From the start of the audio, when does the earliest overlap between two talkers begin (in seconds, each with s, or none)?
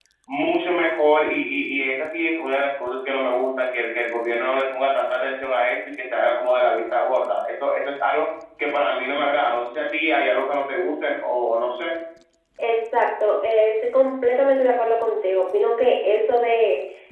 none